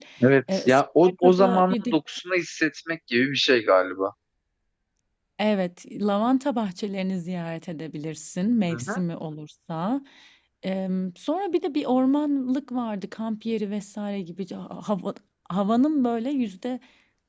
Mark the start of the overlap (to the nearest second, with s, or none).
1 s